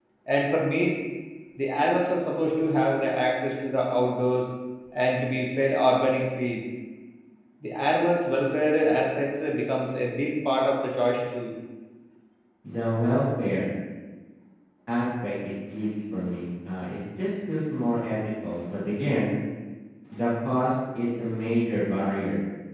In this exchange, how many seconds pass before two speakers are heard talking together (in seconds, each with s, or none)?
none